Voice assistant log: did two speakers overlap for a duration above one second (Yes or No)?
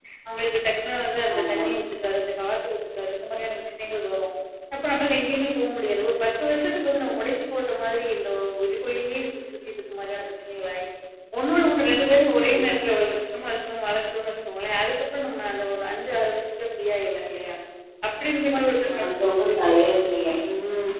No